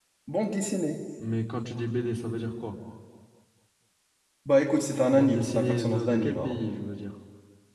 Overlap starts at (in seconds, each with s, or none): 5.1 s